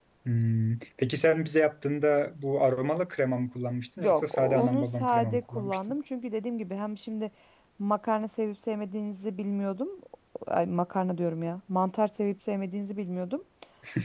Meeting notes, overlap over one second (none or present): present